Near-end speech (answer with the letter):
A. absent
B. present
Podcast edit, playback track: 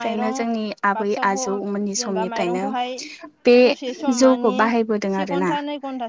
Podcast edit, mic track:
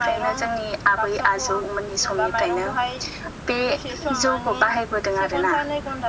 A